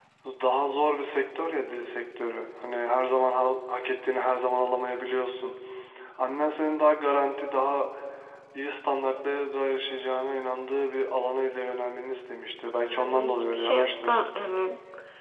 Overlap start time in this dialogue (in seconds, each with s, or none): 12.9 s